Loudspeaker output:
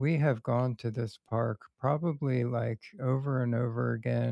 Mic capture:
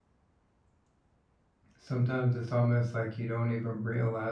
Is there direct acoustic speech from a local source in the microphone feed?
Yes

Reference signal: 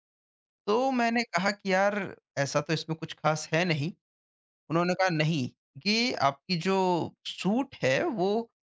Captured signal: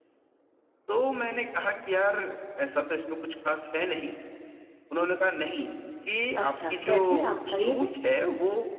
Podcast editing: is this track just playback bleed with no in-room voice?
No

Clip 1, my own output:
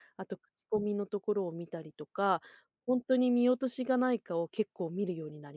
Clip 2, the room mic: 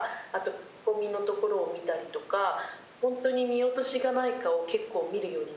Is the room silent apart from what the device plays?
Yes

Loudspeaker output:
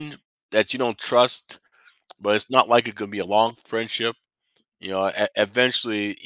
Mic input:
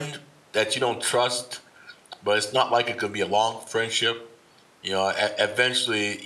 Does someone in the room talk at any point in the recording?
No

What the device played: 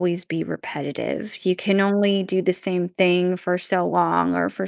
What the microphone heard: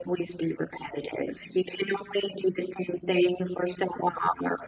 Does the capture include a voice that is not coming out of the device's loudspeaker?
No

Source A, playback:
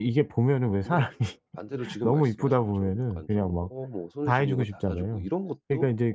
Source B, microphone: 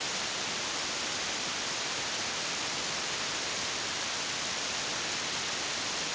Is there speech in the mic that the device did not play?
No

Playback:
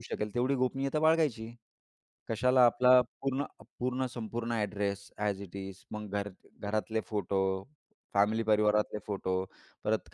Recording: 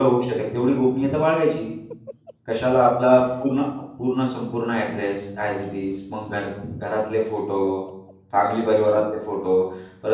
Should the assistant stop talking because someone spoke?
No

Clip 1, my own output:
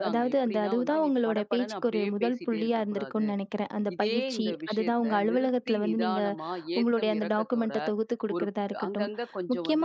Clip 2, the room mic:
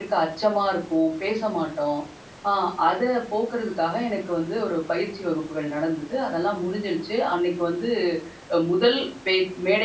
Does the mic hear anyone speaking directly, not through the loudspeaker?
Yes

